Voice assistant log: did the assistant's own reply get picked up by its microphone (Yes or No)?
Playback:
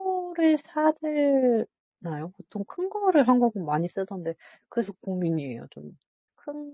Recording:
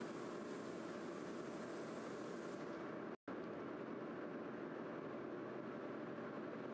No